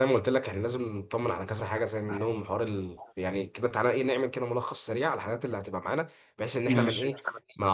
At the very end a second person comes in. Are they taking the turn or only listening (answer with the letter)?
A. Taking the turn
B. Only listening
B